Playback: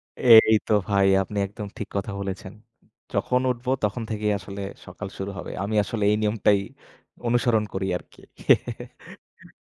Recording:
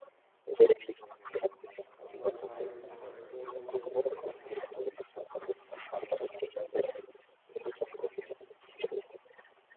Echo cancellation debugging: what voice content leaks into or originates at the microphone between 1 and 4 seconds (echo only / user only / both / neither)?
both